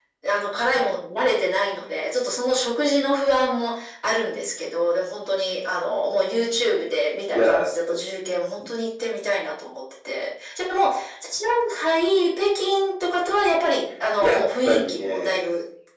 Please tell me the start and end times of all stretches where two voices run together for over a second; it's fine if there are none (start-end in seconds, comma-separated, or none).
14.2-15.4